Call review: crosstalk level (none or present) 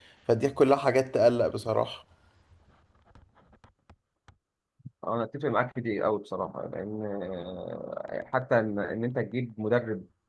none